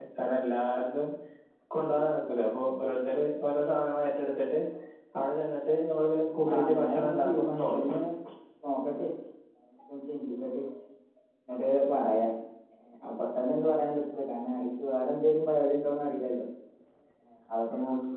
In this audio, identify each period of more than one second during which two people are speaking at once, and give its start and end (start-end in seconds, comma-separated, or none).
6.5-7.9